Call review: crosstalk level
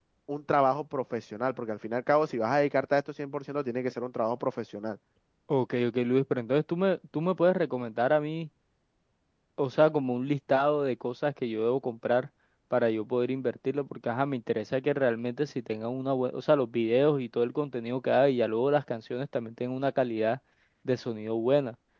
none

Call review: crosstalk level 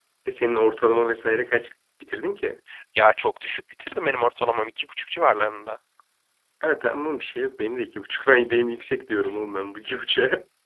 none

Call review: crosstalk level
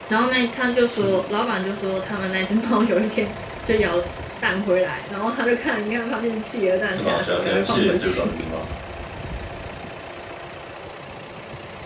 present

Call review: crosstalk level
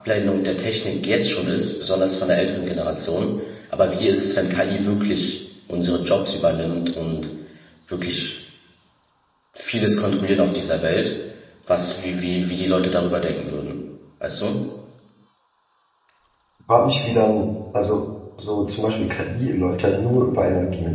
none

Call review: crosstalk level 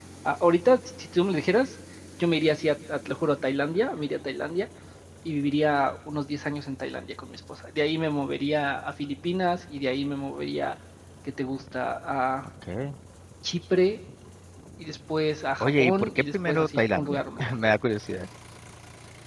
present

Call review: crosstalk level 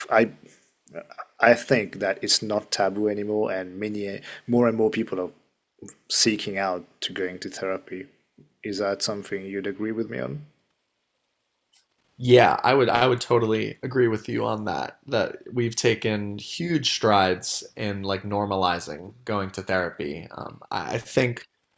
none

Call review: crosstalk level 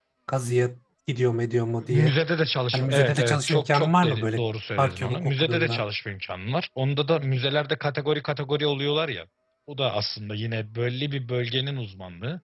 present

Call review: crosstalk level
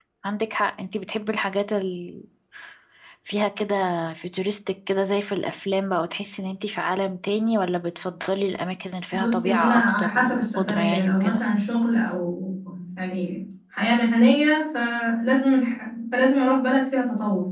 present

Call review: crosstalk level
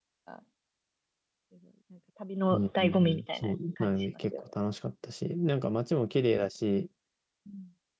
present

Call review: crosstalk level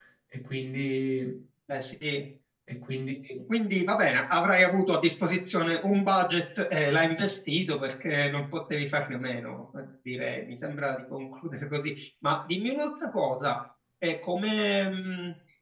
none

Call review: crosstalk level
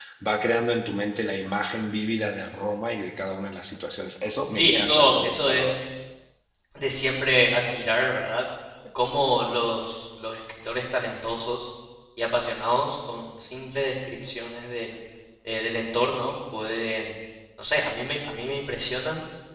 present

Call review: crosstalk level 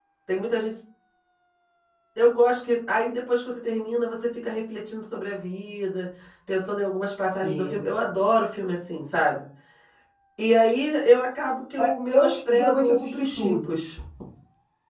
present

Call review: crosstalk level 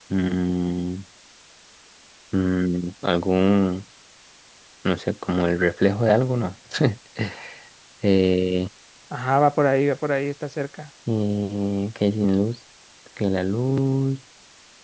none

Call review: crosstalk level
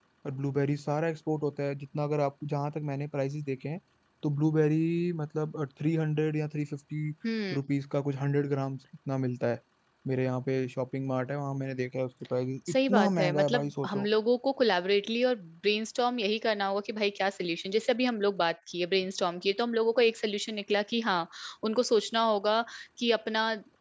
present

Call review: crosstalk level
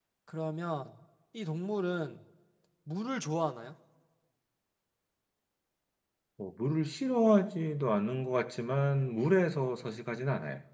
none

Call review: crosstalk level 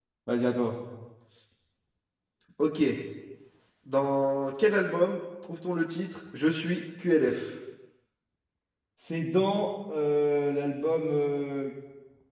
none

